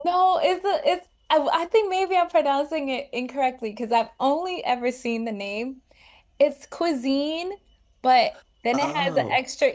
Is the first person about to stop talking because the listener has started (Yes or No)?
No